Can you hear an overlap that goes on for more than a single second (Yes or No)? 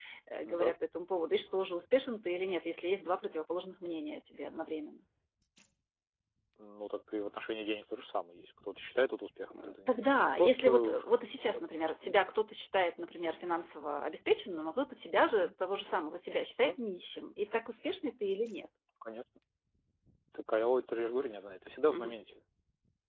Yes